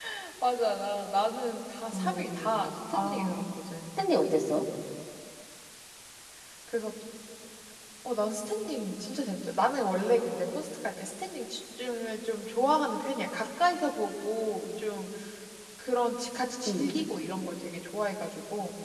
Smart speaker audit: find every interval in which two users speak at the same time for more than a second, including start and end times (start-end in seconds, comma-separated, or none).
1.9-3.4